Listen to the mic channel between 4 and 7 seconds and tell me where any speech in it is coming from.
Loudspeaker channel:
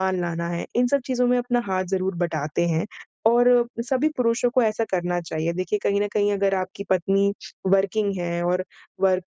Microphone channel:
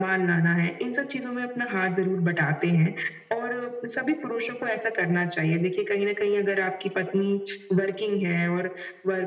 echo only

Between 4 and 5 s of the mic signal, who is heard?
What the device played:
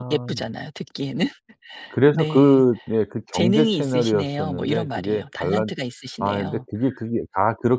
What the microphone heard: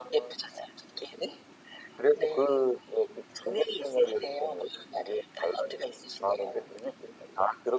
echo only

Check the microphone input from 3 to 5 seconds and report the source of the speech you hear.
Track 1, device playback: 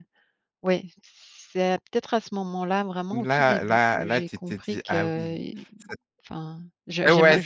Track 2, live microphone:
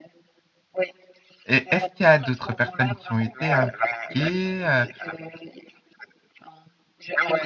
both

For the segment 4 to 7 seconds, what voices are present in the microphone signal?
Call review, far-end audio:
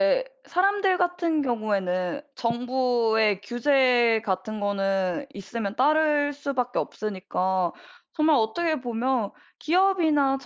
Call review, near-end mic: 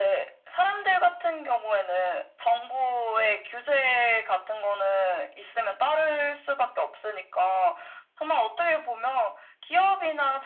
echo only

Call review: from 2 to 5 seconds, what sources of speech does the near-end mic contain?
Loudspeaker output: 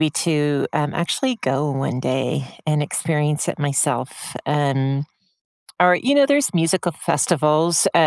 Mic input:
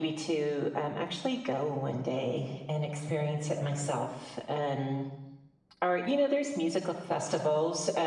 echo only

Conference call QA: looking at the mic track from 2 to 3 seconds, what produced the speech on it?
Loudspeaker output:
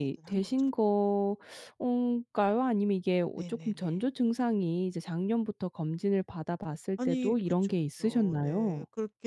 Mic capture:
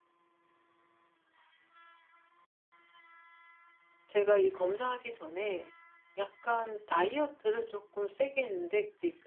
neither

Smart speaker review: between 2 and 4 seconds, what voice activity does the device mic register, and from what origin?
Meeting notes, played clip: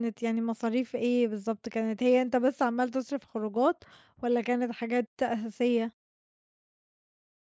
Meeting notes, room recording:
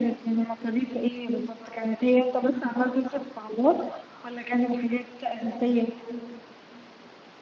echo only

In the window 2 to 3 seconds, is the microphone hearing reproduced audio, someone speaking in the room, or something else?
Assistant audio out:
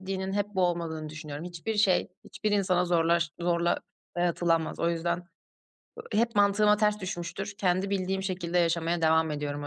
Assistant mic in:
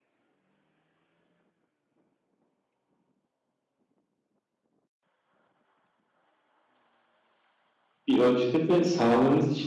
neither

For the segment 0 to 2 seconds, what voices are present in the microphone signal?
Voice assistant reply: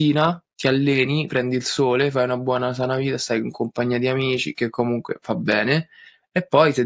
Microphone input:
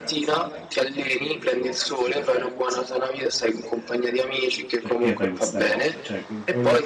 both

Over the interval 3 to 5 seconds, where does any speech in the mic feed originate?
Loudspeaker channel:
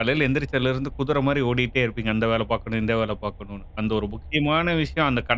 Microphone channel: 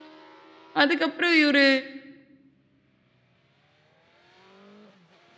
neither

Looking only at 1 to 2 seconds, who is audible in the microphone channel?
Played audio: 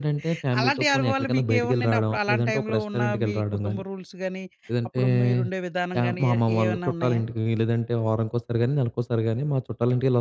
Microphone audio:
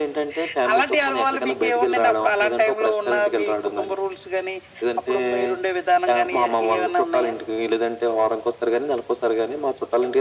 echo only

